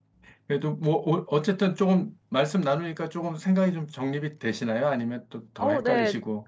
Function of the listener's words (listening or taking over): taking over